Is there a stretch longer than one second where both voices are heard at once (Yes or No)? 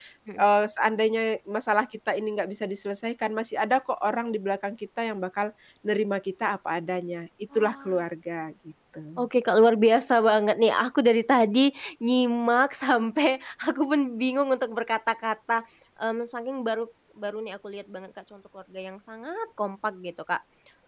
No